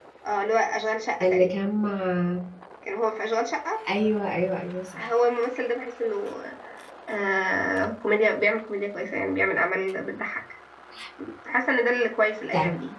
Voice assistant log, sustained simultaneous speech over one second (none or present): none